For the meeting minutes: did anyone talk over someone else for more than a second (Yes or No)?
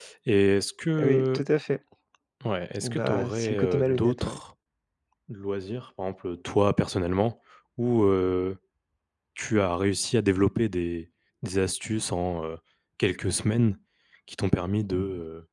Yes